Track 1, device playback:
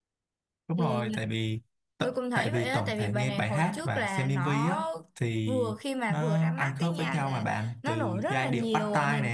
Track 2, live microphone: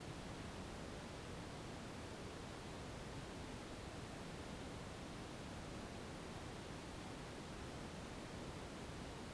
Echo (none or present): none